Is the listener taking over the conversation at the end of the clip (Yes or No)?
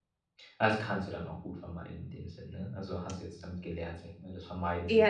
Yes